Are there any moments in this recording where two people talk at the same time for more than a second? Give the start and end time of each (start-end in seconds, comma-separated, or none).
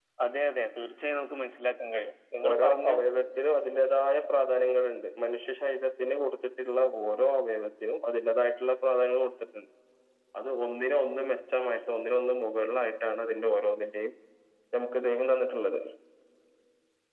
none